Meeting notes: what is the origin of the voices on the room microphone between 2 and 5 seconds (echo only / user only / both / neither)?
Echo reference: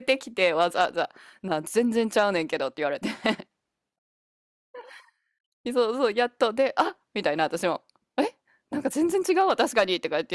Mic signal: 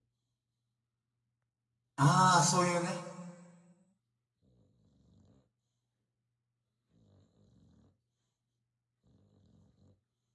user only